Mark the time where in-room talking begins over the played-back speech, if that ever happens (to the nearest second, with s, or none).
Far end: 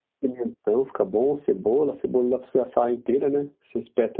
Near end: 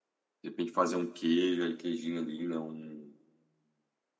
0 s